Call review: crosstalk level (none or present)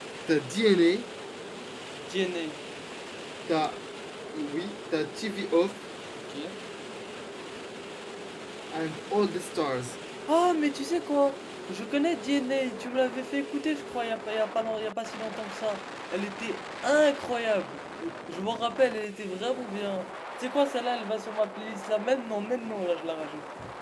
none